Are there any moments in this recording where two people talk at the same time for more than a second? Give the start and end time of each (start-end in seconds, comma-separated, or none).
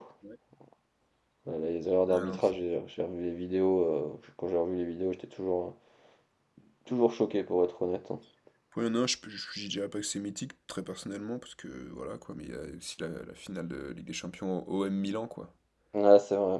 none